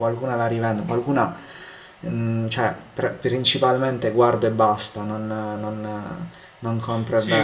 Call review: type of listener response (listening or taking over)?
taking over